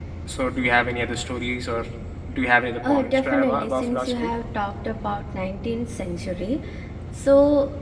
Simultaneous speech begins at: 2.9 s

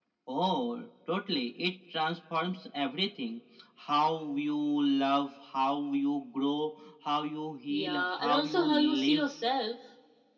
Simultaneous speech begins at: 7.7 s

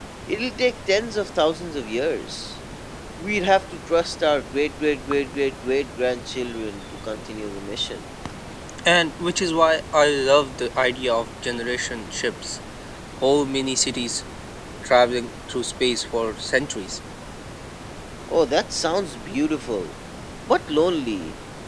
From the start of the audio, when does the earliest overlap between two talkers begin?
none

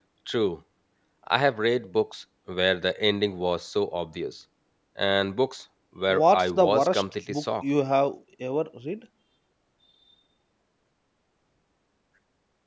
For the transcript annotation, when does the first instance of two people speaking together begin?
6.1 s

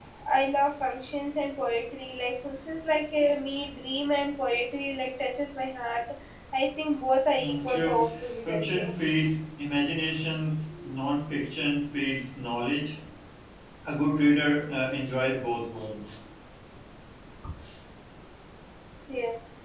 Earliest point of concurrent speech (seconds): 7.4 s

